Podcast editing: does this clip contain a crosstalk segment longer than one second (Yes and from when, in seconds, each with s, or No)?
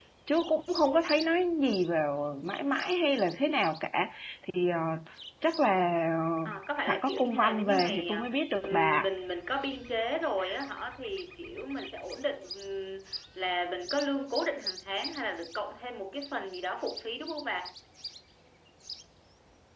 Yes, from 6.8 s